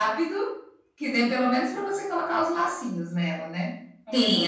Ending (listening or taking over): taking over